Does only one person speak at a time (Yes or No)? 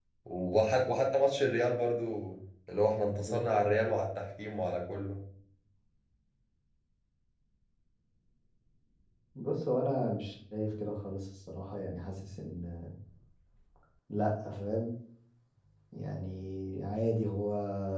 Yes